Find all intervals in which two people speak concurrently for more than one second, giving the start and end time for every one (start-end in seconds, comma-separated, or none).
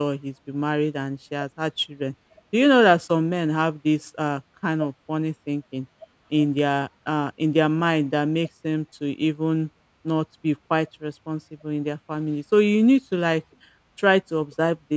none